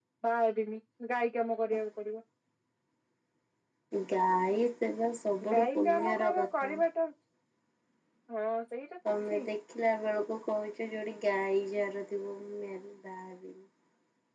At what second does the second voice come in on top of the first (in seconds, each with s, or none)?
5.5 s